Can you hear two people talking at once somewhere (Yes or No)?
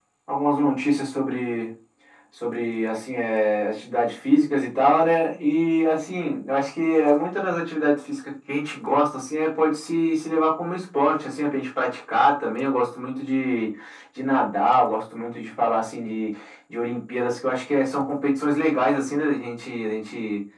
No